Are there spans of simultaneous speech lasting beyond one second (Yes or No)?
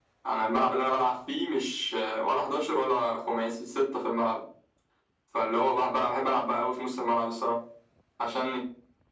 No